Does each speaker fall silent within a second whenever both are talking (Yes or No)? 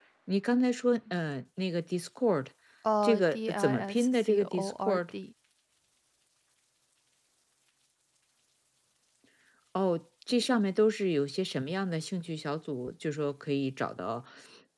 No